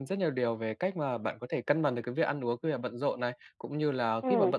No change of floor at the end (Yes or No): Yes